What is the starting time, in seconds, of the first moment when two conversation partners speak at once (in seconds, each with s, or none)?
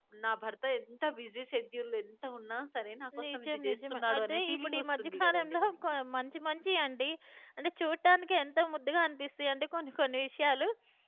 3.1 s